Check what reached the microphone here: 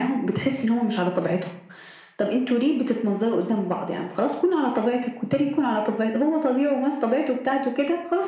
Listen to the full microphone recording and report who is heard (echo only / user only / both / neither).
echo only